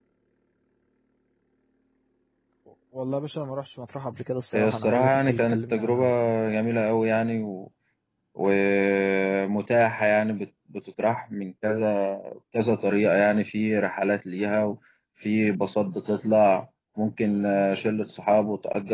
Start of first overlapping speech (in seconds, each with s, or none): 4.5 s